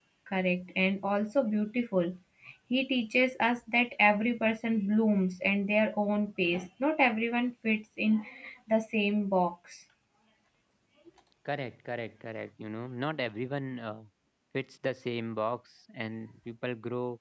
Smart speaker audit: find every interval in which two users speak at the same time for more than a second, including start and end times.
none

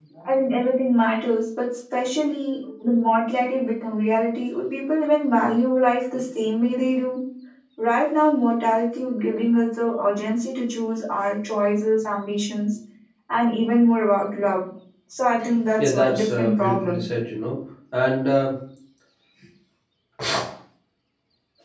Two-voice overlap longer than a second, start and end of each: 15.8-17.0

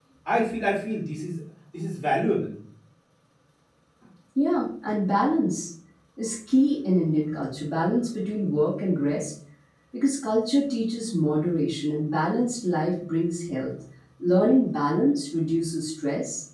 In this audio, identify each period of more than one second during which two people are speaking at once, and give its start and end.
none

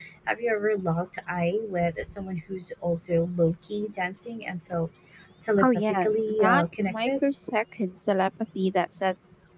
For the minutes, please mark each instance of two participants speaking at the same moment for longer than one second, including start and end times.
5.6-7.2

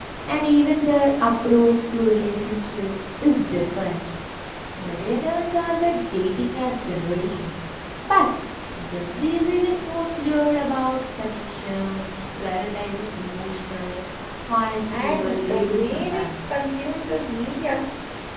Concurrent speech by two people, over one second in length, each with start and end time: 14.9-16.5

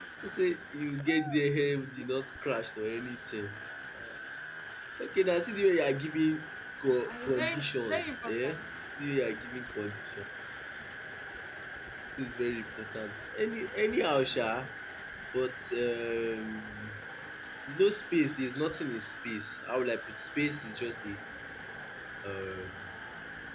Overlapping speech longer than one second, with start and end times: 7.1-8.5

